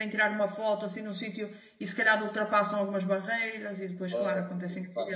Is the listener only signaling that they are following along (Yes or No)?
No